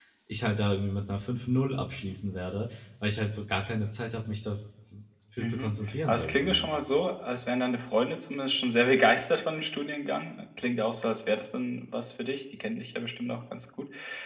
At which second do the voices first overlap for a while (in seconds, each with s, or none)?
5.4 s